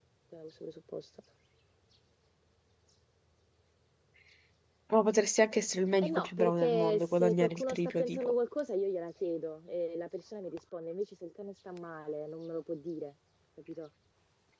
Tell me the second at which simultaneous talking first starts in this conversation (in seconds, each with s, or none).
6.0 s